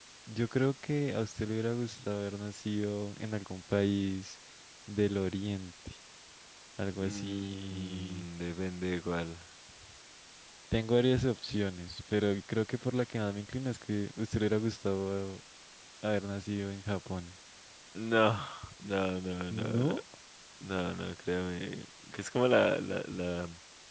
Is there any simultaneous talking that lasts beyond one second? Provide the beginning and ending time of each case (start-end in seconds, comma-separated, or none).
7.0-8.2